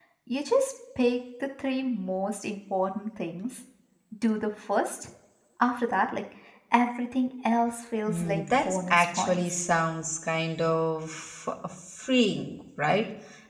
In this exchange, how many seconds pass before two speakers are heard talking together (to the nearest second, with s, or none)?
8 s